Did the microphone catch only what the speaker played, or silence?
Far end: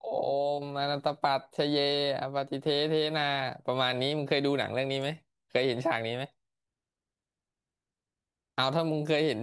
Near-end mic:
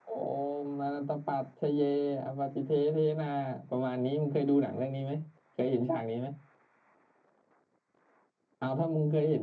Yes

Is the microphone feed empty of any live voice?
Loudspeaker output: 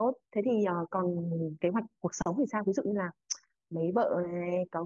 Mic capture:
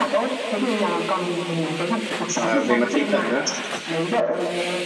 No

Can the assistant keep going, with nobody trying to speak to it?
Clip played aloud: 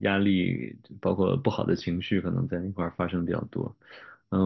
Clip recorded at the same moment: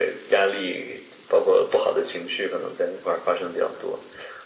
Yes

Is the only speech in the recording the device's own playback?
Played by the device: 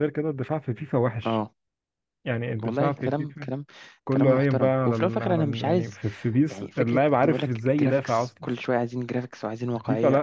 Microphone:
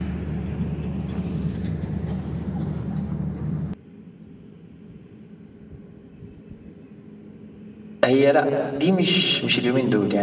No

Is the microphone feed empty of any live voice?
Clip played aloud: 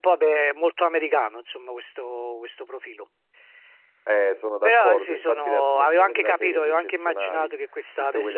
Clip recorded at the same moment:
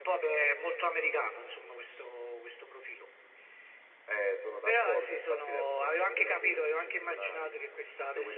Yes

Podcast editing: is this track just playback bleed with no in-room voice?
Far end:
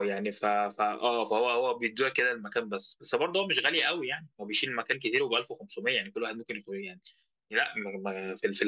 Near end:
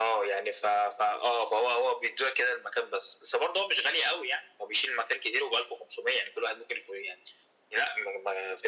Yes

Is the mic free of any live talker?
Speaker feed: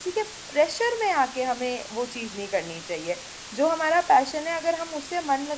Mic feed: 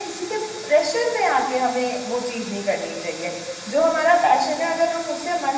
Yes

